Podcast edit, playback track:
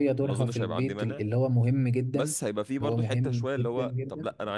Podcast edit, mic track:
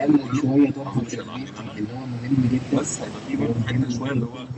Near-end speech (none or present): none